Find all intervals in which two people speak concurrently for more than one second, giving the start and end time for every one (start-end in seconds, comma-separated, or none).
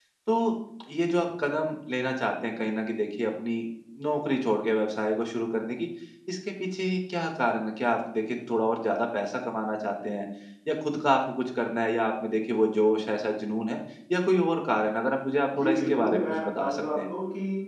15.6-17.1